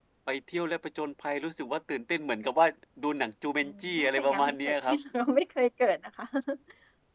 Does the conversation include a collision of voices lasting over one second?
Yes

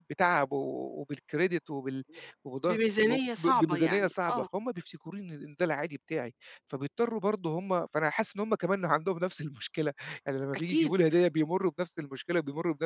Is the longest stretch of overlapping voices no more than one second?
No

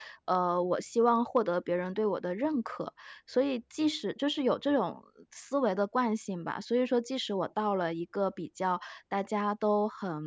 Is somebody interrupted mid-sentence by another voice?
No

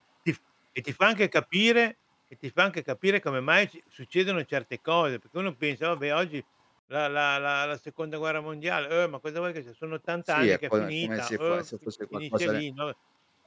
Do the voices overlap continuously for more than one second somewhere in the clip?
Yes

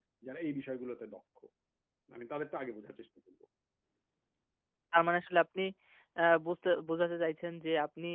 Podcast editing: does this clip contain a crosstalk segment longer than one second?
No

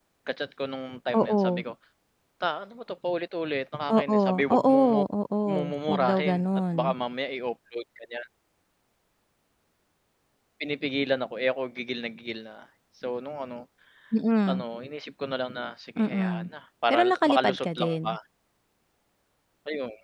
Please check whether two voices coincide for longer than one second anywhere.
Yes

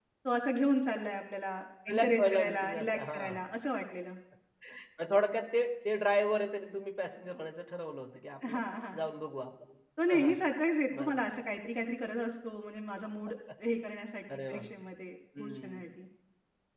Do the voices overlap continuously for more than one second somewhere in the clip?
Yes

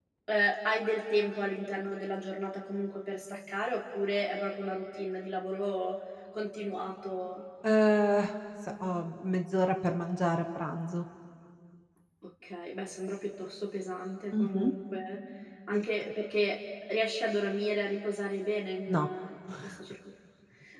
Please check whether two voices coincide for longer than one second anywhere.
No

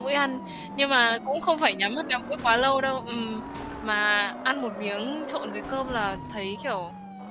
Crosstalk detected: No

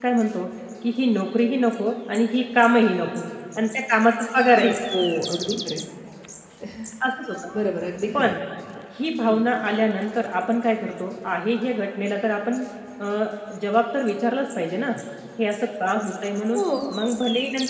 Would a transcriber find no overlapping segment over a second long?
Yes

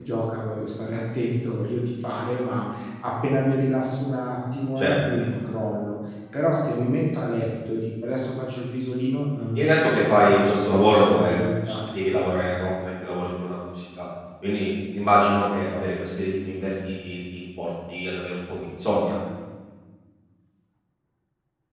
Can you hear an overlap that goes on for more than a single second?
Yes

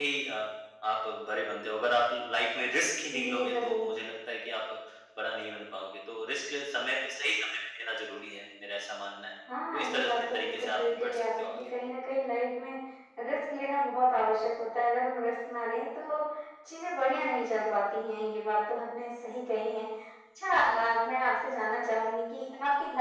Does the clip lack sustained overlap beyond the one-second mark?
No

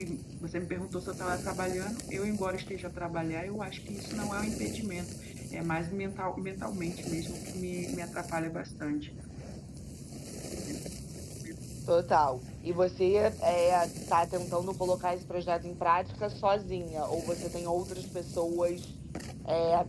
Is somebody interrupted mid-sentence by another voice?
No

